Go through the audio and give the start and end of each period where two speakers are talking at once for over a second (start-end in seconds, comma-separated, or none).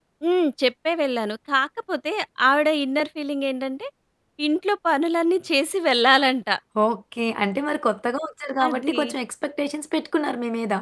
none